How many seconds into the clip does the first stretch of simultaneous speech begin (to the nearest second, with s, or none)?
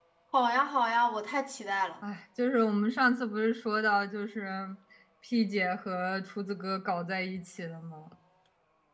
none